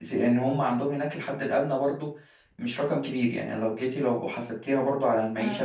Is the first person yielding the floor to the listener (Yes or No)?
Yes